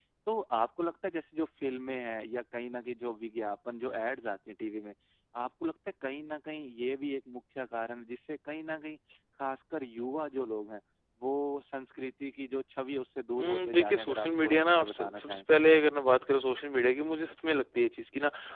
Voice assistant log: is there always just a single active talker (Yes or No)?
No